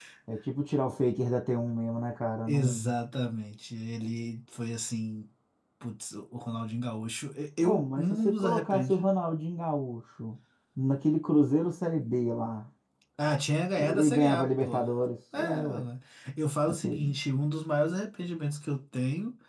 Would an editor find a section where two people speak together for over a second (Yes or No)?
Yes